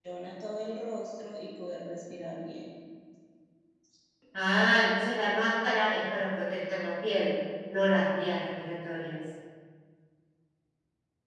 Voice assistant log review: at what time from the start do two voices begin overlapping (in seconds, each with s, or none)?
none